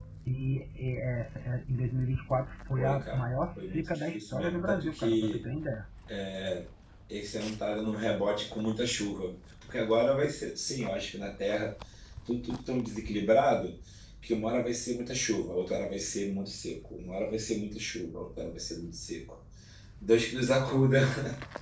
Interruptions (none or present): present